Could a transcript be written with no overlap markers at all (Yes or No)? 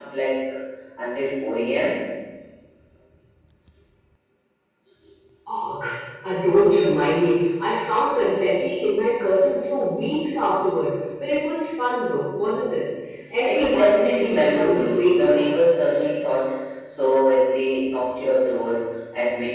No